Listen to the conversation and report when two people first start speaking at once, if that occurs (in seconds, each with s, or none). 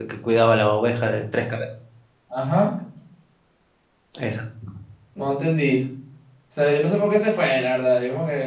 none